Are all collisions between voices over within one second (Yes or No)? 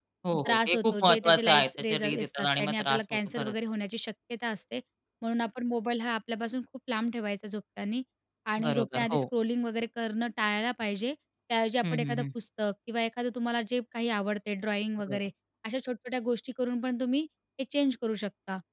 No